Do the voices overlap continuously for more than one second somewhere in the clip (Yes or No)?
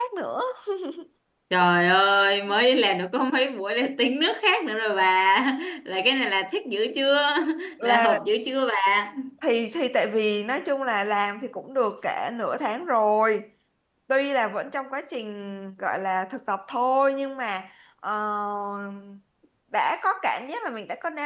No